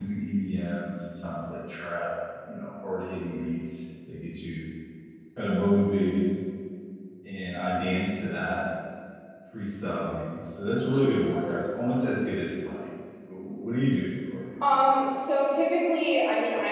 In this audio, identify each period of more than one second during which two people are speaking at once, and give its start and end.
none

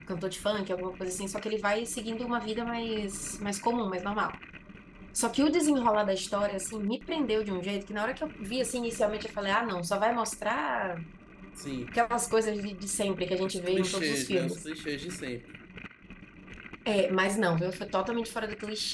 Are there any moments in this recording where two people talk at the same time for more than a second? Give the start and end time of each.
13.4-14.7

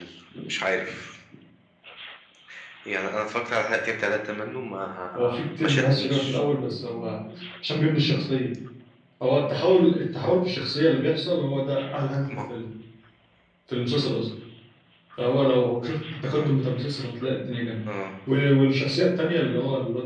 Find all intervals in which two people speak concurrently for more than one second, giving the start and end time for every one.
5.2-6.4

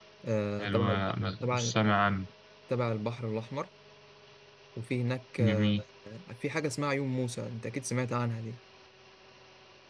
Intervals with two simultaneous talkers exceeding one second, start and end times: none

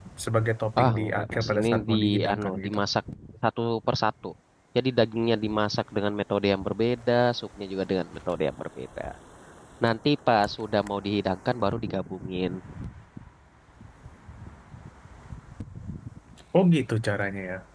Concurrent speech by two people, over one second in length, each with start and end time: 0.8-2.8

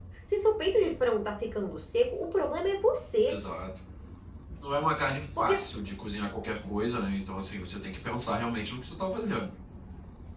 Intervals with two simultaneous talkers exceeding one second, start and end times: none

